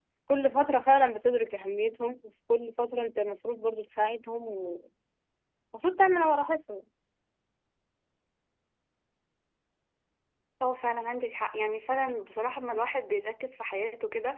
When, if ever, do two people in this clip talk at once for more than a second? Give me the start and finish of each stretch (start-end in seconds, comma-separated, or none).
none